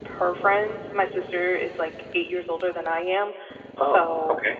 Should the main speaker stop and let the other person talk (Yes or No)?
No